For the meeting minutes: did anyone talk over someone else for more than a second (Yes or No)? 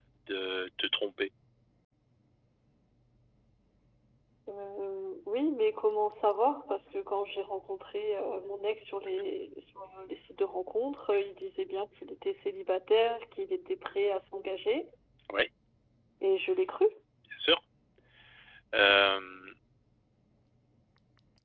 No